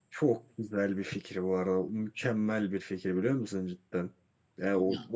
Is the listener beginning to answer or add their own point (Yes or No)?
No